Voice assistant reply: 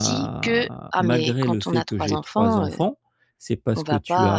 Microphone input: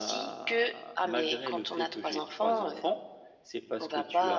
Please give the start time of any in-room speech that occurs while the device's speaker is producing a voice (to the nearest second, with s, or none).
none